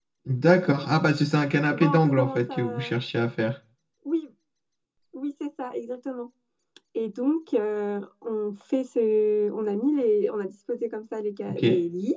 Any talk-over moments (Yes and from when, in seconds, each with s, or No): Yes, from 1.7 s